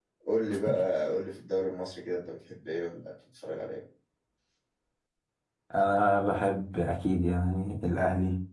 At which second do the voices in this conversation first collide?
none

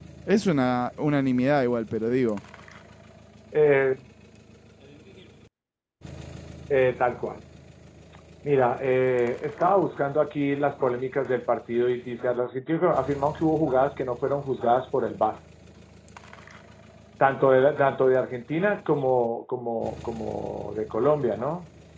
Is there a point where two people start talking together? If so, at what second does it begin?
none

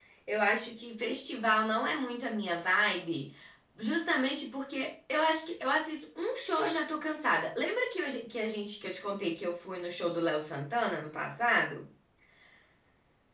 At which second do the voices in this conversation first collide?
none

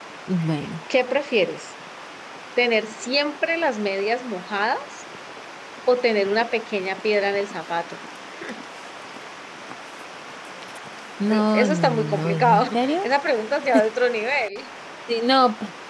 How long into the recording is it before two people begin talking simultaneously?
11 s

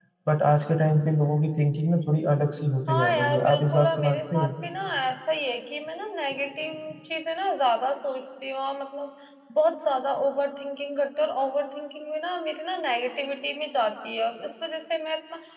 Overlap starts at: 3 s

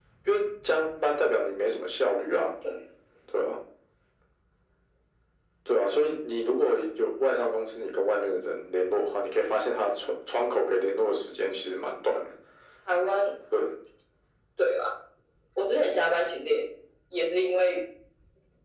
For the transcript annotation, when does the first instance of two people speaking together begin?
none

